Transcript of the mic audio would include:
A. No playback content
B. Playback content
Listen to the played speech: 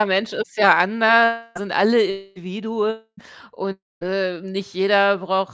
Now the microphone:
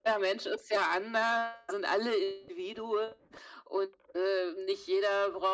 B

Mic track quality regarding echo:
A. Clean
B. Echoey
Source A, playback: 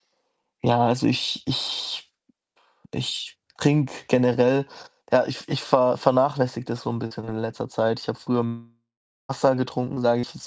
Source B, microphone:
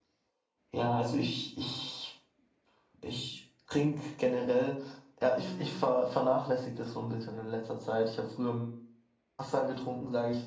B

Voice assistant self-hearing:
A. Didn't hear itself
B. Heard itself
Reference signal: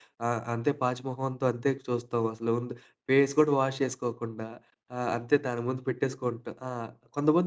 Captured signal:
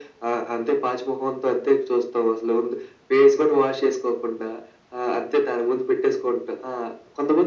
B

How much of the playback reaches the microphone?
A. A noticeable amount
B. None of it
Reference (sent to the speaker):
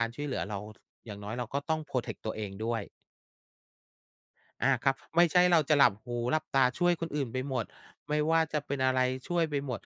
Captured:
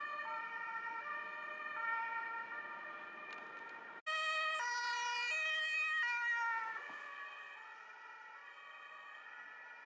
B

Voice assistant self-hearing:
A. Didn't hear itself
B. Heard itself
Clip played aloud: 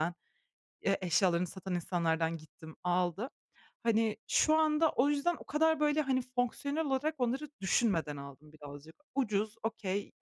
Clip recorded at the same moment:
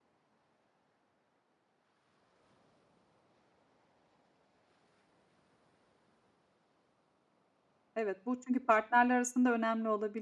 A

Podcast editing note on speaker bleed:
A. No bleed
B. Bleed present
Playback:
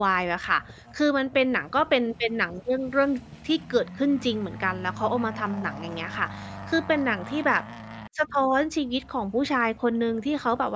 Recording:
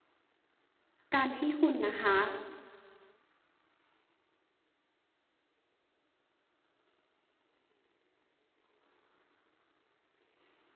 A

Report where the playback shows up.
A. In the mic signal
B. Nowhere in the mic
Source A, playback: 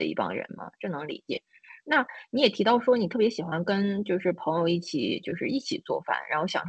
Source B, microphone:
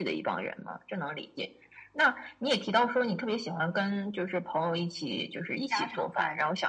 A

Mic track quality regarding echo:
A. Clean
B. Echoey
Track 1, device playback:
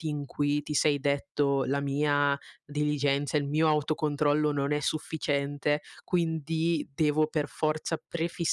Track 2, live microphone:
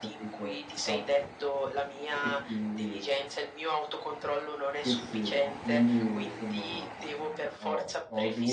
B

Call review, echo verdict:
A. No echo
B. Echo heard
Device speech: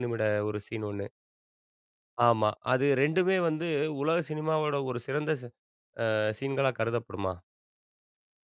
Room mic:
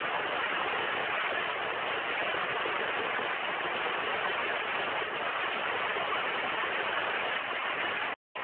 A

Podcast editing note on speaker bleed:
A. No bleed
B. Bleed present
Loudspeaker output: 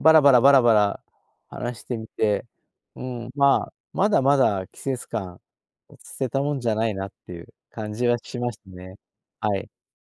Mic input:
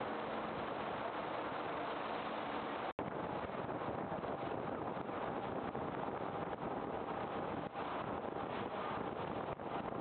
A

